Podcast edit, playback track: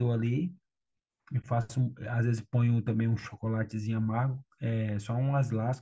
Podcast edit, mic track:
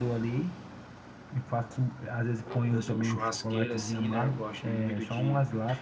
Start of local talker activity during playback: 2.7 s

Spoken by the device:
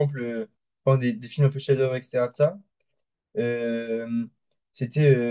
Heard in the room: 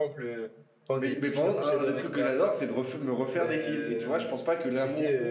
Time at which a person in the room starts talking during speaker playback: 0.9 s

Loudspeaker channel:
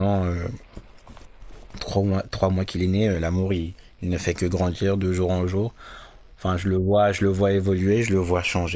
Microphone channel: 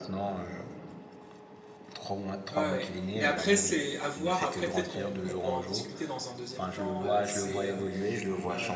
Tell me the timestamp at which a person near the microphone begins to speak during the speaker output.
2.5 s

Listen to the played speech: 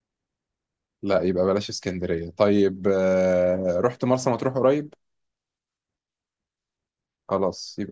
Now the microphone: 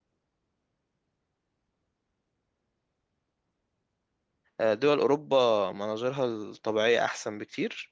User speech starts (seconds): 4.6 s

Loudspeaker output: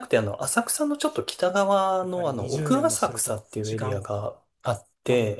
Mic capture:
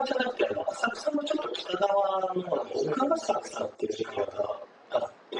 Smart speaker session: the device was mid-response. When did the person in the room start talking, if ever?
none

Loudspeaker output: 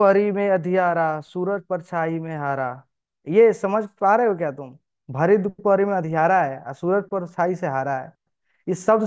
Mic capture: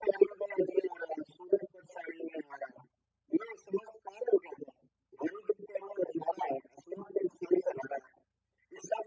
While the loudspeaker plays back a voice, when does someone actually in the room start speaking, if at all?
none

